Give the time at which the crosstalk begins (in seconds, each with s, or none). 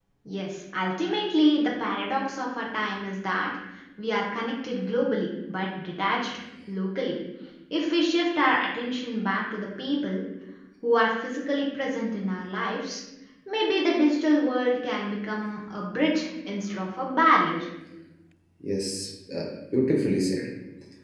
none